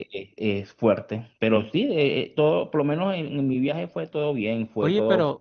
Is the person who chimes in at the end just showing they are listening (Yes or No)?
No